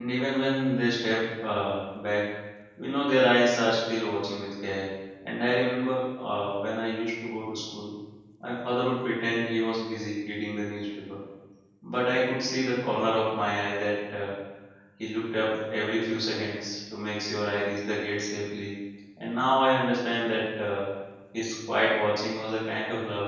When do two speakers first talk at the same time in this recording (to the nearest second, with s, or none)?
none